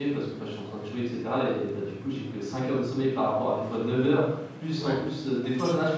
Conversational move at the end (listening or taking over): listening